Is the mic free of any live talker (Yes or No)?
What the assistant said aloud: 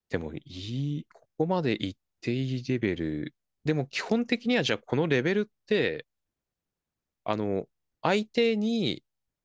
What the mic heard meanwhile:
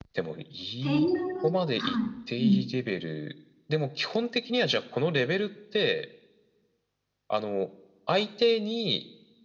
No